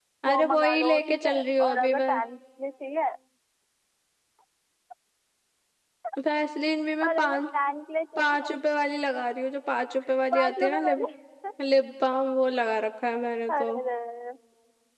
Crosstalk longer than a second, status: present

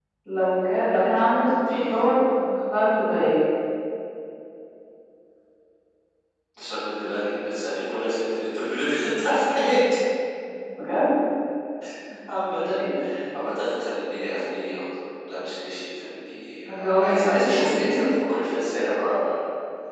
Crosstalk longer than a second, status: present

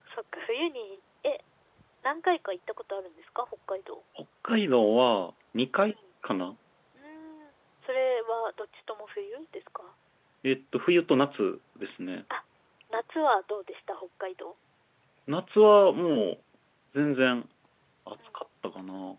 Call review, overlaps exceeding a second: none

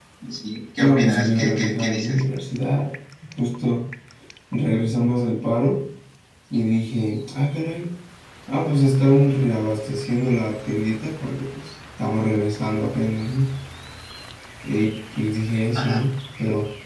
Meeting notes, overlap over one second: present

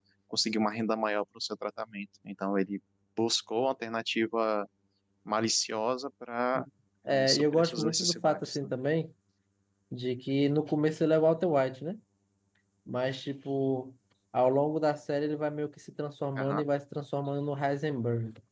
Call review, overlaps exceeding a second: present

